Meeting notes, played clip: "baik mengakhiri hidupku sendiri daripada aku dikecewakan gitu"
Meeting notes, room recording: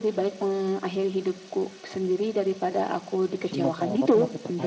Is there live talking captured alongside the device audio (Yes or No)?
Yes